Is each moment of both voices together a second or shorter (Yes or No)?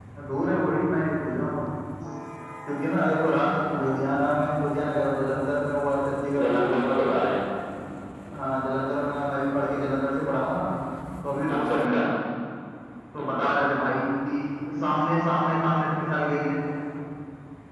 Yes